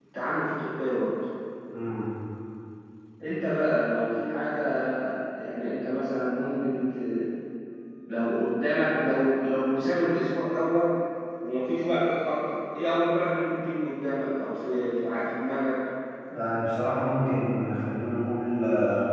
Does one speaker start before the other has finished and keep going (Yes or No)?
No